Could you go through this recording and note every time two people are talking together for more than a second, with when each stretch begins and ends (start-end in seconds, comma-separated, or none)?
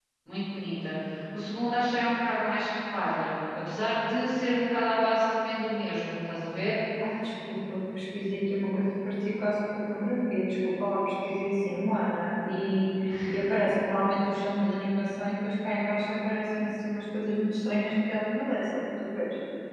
none